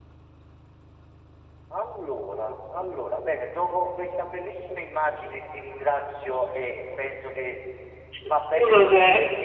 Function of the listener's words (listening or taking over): listening